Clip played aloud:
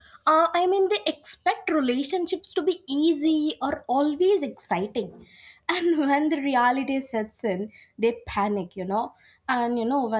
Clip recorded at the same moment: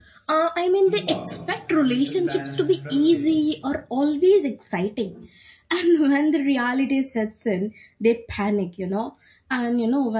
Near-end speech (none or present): present